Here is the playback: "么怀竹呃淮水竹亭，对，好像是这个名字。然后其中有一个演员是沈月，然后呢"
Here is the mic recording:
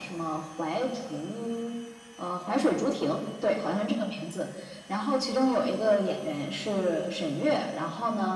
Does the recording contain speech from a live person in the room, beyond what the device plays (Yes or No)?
No